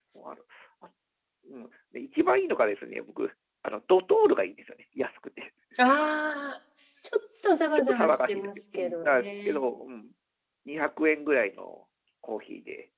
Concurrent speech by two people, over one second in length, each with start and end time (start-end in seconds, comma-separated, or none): 7.8-9.6